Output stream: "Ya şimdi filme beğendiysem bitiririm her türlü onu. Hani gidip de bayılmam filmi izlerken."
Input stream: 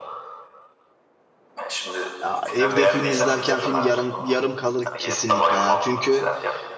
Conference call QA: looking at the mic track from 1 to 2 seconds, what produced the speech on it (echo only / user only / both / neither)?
echo only